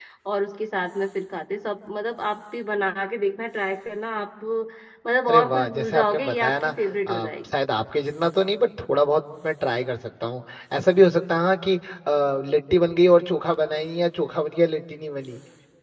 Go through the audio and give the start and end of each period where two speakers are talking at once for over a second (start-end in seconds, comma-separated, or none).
5.3-7.5